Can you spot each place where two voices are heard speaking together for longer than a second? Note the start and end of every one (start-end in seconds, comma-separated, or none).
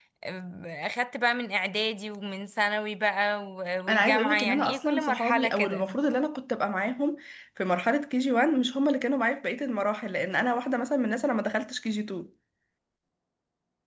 3.9-5.8